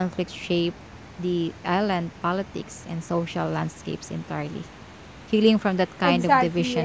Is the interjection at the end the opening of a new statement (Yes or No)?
Yes